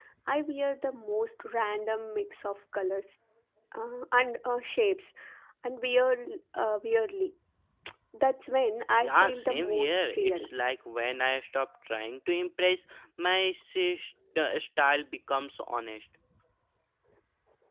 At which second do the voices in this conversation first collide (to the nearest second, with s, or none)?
9 s